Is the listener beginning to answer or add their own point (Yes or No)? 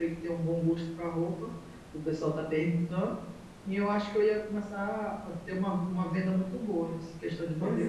Yes